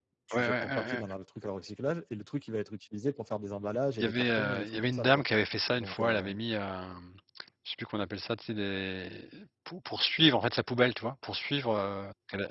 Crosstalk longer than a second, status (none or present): present